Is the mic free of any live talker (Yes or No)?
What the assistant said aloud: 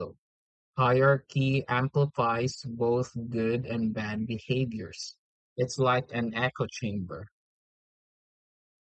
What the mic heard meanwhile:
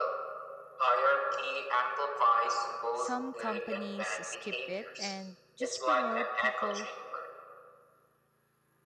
No